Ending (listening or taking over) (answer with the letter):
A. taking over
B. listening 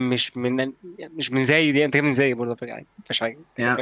A